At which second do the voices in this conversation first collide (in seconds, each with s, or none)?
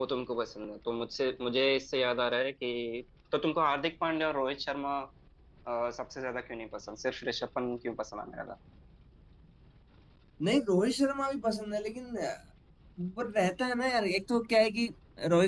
none